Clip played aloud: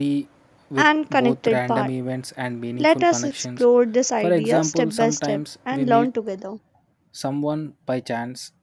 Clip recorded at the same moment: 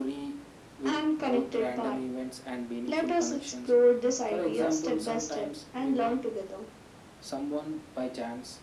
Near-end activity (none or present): none